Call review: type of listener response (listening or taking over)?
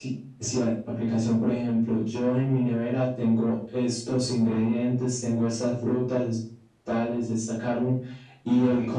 listening